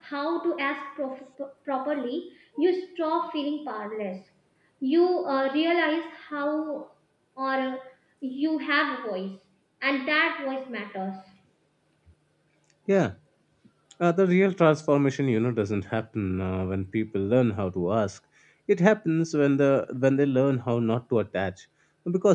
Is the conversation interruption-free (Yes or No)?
Yes